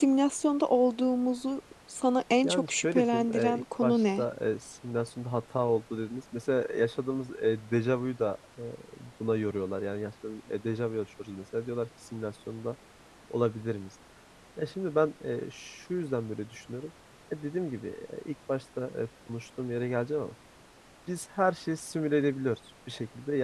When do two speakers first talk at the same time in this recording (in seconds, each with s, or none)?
2.4 s